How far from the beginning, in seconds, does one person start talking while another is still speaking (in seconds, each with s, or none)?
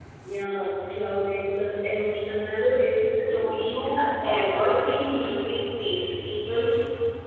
3.2 s